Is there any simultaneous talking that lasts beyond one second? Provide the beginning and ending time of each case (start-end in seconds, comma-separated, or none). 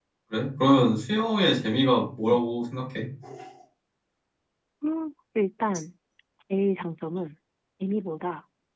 none